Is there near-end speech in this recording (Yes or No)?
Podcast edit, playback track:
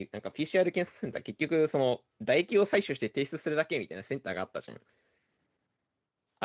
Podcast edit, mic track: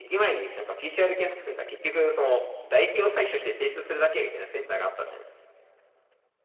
No